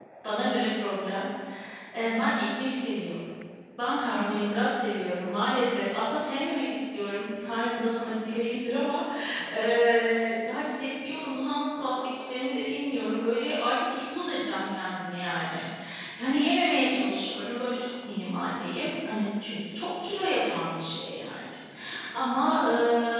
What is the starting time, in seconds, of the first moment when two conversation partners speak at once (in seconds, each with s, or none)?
none